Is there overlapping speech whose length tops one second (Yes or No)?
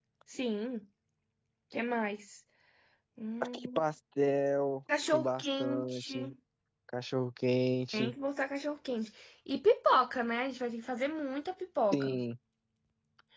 Yes